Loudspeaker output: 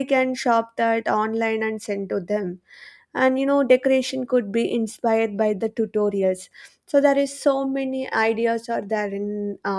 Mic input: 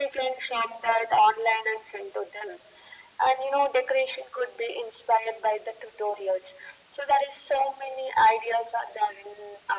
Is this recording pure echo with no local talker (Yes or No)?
Yes